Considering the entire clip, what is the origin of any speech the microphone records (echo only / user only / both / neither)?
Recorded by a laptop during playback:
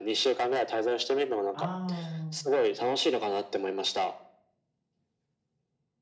both